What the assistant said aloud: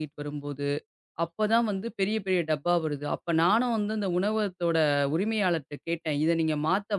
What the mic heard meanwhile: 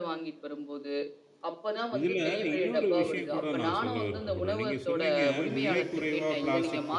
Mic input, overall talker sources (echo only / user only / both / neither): both